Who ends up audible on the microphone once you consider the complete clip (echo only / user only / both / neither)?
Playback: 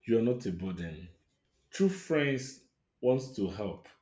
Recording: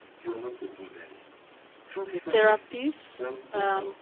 both